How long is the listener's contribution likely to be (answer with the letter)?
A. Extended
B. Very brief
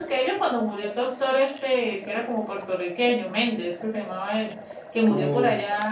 B